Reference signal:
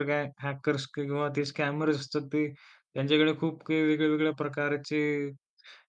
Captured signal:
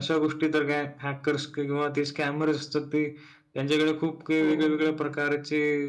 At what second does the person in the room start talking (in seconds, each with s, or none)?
4.4 s